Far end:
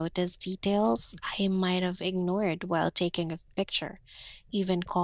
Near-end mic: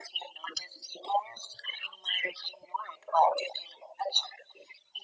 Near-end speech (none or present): none